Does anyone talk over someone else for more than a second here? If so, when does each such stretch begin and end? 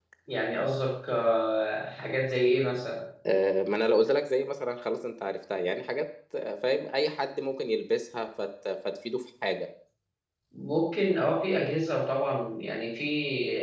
none

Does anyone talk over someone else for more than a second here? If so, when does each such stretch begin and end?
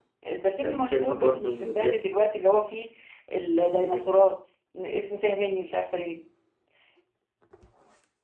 0.6-2.0

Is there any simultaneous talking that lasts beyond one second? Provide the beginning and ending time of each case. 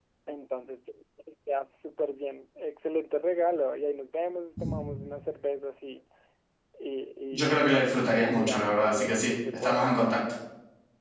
8.3-10.2

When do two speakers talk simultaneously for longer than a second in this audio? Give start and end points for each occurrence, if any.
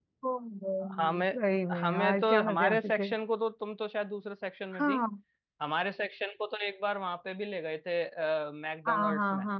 1.8-3.1

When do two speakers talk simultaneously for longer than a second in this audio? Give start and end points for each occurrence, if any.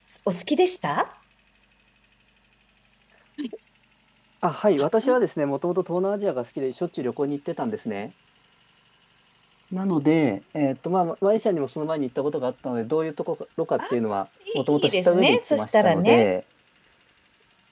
14.5-16.3

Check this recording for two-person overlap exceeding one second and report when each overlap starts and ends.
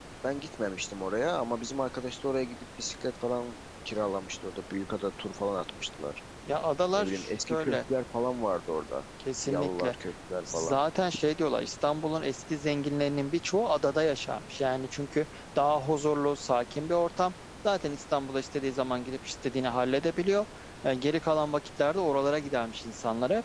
none

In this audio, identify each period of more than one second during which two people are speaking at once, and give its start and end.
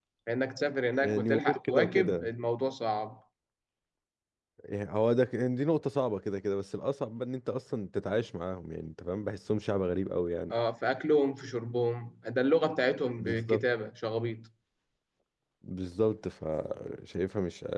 1.0-2.3

